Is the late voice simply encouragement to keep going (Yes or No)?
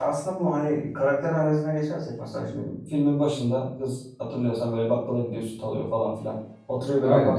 Yes